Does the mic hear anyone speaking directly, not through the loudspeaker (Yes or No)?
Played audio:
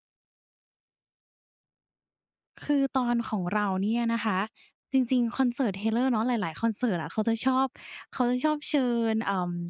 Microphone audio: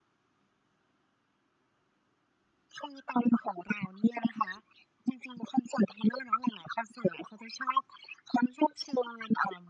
No